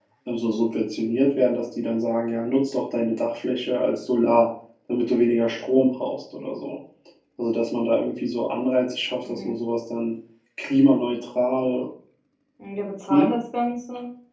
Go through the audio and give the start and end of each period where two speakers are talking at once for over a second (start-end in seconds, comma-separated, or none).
none